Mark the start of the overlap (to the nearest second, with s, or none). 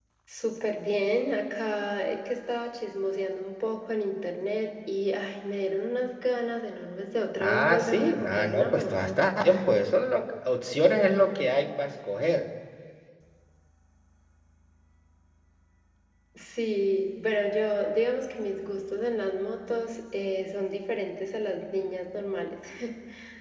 7 s